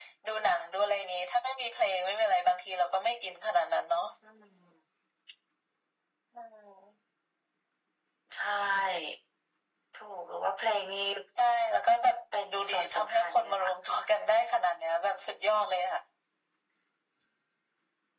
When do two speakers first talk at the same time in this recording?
13 s

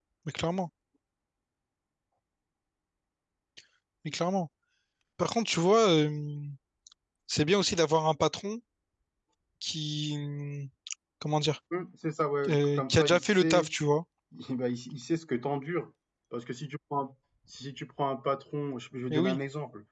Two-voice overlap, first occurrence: 12 s

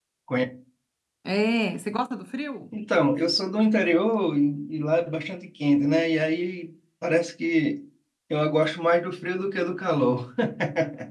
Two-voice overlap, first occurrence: none

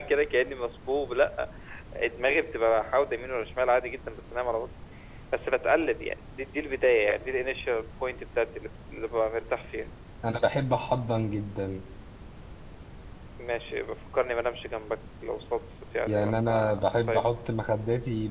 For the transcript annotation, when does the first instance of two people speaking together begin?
16 s

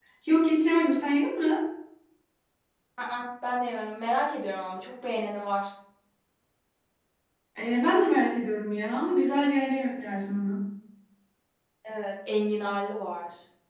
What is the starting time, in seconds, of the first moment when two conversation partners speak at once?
none

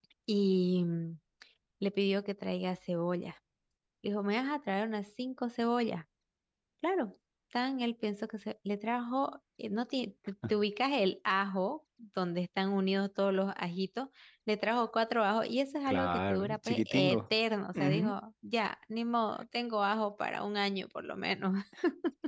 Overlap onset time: 16 s

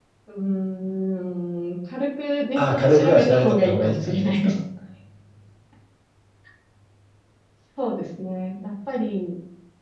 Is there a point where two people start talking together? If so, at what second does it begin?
3 s

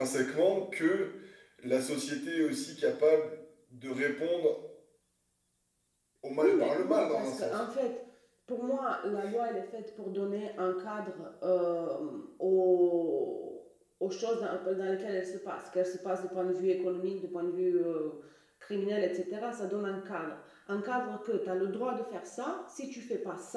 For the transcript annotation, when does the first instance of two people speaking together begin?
6 s

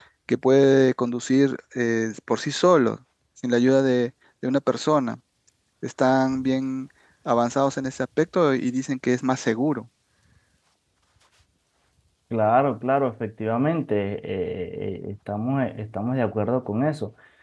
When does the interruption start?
none

